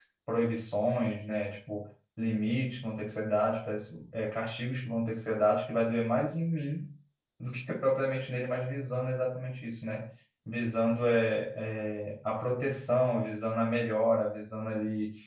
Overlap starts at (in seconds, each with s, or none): none